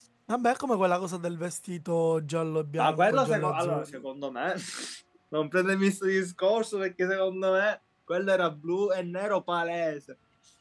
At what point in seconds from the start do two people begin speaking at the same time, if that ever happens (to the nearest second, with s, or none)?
3 s